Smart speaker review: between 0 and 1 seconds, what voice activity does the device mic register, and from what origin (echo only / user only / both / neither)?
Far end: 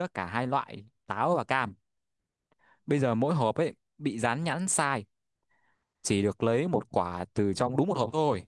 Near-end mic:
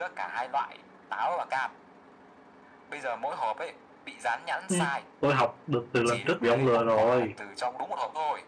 echo only